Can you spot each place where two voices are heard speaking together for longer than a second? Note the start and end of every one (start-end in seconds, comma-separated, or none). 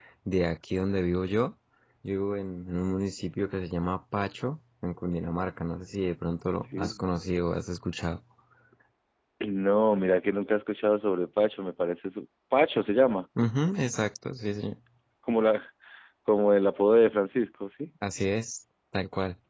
none